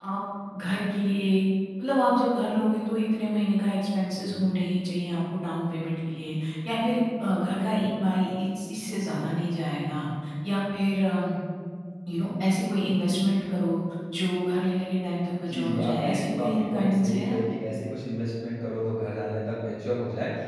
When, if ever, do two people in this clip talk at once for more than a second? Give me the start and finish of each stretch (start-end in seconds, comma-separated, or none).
15.5-17.4